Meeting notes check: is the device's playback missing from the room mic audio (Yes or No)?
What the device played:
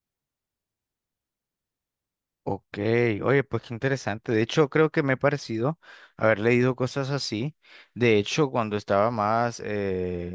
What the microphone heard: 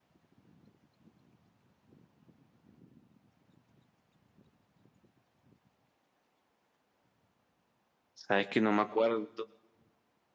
Yes